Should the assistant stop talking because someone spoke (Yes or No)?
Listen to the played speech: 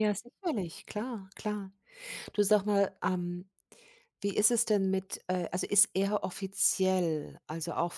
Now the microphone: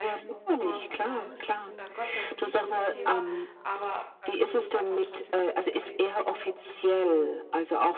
Yes